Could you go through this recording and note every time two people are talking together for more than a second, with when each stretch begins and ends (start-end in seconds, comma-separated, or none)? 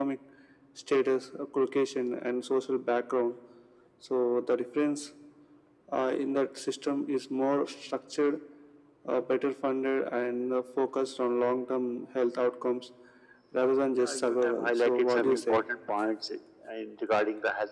14.0-15.6